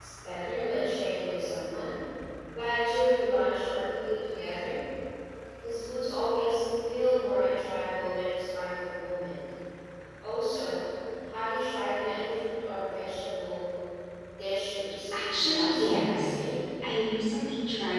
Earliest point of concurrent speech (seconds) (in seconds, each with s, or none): 15.1 s